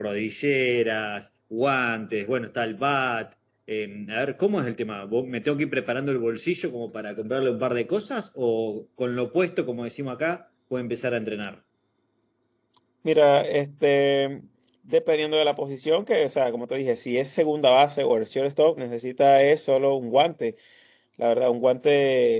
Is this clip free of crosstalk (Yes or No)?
Yes